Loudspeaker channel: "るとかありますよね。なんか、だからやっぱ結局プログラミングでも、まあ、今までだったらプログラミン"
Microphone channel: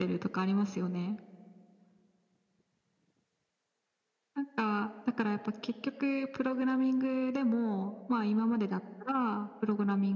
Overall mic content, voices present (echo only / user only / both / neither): echo only